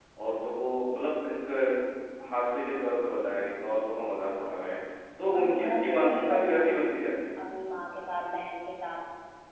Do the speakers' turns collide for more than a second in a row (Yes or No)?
Yes